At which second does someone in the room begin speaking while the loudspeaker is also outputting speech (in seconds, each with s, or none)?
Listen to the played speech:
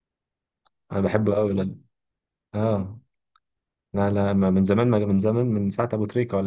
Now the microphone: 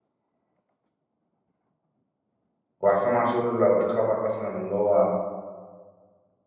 2.8 s